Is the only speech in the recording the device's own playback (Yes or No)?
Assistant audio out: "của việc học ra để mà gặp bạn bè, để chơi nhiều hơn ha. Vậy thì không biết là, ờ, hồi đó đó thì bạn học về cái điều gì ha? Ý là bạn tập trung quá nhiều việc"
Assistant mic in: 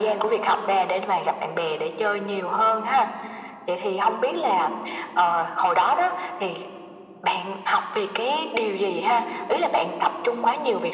Yes